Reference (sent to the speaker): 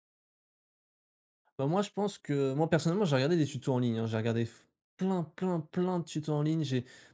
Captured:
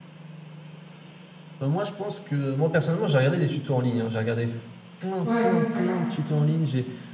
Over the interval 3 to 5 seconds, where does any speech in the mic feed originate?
echo only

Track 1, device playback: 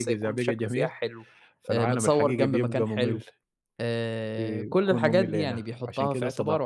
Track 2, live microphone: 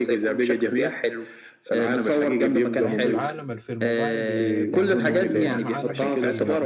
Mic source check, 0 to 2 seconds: echo only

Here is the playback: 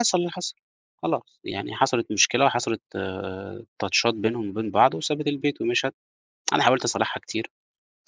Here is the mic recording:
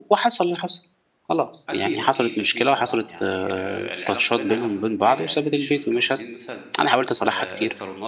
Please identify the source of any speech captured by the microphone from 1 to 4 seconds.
both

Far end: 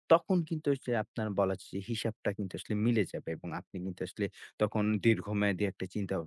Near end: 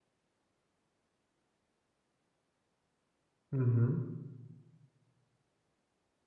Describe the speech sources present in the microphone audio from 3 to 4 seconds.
user only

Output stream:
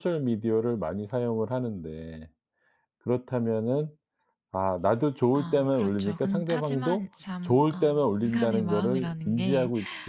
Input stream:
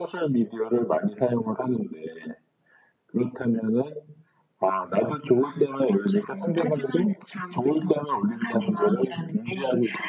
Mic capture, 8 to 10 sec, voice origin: echo only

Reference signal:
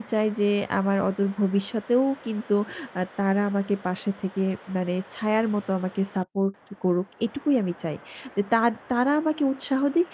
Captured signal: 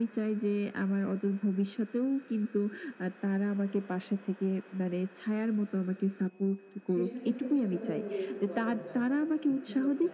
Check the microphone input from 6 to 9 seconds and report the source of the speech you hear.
both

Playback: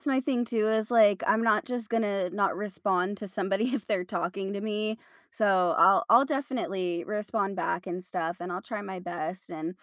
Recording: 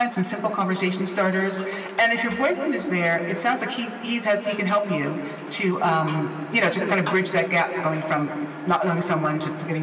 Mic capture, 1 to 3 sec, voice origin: user only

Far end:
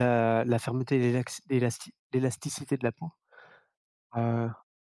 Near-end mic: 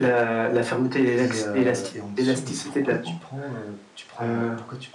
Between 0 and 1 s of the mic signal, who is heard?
echo only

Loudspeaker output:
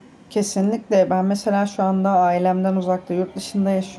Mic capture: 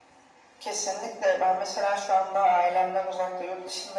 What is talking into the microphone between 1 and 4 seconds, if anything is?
echo only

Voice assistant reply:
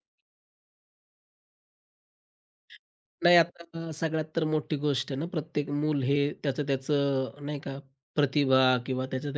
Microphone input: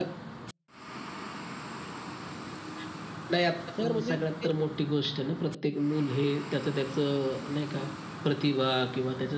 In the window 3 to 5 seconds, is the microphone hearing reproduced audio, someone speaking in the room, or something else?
both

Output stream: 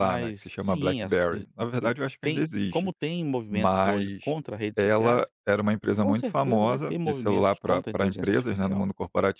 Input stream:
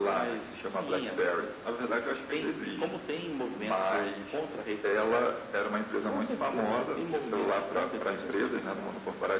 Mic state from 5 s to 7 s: echo only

